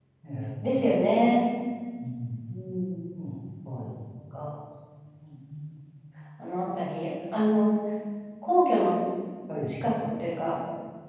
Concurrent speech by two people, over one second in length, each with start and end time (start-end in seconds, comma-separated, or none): none